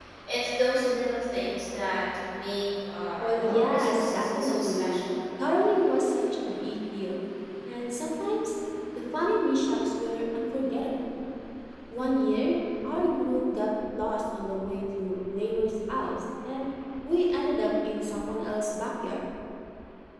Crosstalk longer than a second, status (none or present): present